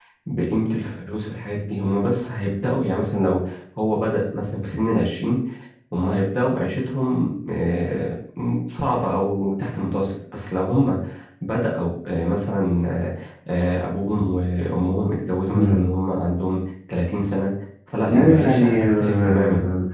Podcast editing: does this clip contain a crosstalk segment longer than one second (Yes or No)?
Yes